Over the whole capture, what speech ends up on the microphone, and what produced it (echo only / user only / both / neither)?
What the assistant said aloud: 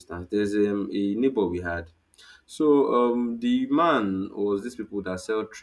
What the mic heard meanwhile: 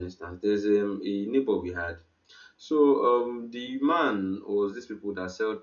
echo only